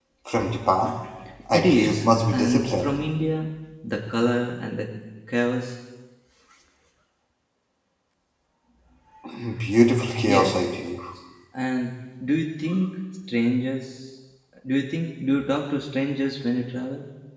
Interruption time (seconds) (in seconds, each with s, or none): 1.5 s